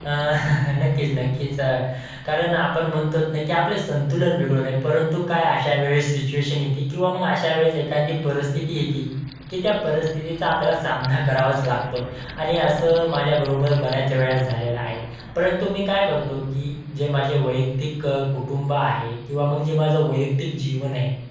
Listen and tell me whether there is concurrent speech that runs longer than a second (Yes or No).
No